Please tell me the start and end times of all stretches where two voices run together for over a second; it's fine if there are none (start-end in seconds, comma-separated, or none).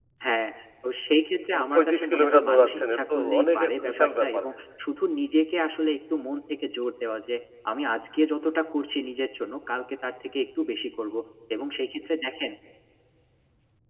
1.5-4.4